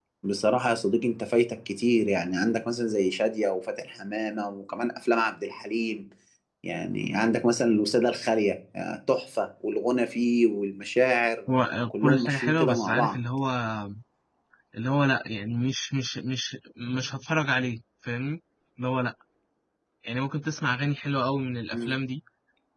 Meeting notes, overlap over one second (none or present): present